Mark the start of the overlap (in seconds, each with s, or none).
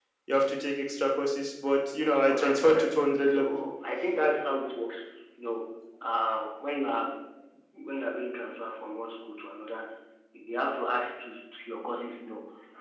2.2 s